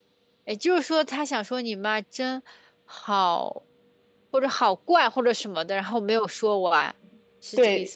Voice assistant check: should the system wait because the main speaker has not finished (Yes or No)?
No